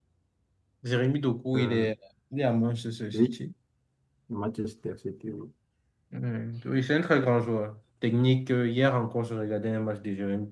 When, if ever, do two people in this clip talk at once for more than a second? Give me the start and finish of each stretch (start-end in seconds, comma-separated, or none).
none